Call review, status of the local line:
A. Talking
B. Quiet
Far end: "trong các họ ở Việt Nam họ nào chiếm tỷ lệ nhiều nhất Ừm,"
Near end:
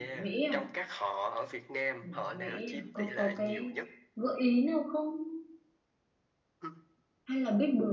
A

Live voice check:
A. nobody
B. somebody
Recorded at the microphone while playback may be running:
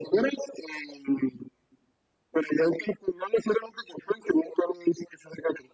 A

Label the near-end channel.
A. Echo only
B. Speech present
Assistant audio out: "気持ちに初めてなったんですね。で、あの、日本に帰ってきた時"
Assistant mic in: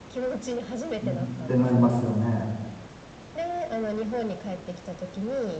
B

